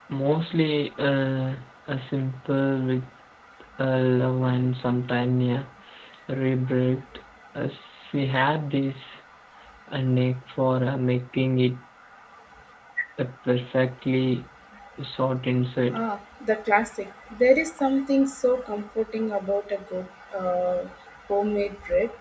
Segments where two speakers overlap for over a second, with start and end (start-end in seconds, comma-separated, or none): none